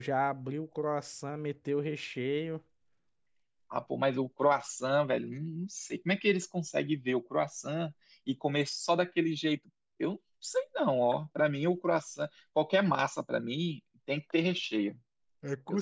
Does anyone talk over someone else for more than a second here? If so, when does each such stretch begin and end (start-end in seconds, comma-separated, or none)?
none